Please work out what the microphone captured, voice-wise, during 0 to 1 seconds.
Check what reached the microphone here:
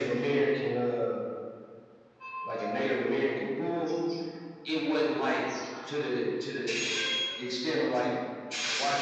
echo only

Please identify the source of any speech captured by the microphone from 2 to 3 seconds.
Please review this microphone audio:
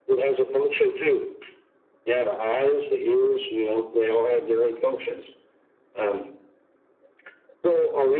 echo only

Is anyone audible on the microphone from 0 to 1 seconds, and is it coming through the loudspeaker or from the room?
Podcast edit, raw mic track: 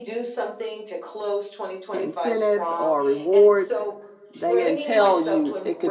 echo only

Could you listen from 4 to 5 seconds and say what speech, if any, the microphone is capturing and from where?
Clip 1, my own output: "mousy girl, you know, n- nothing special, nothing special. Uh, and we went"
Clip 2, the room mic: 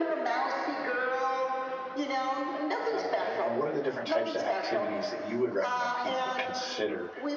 both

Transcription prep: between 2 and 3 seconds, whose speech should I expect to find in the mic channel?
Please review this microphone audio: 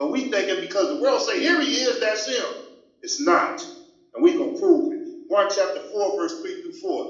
echo only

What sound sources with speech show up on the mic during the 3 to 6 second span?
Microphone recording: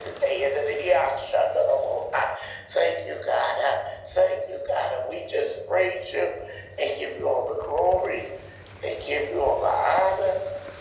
echo only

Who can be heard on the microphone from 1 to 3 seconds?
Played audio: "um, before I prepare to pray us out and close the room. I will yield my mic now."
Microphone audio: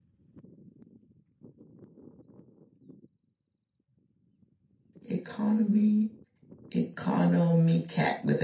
neither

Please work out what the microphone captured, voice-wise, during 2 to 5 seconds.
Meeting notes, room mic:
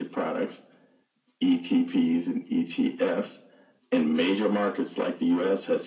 echo only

